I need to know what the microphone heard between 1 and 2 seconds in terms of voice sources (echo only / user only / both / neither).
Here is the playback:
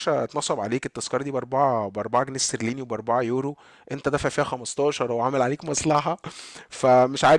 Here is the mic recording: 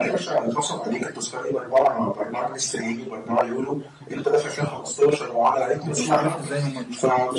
echo only